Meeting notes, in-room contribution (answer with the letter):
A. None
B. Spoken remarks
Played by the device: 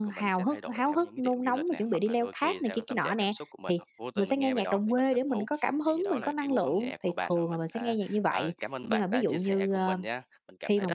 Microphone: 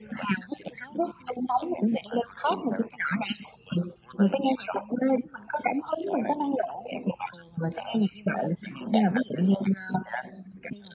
A